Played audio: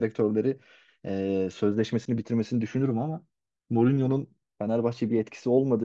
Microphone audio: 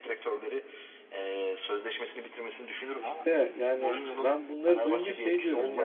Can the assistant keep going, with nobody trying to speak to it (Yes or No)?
No